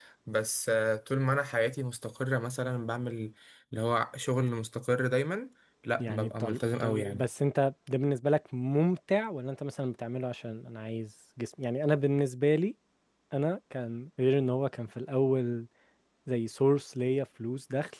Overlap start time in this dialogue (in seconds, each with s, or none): 6.0 s